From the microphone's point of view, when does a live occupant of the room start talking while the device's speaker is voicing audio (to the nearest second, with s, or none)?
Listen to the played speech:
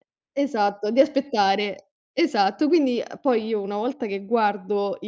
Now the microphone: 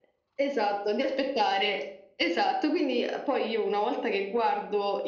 none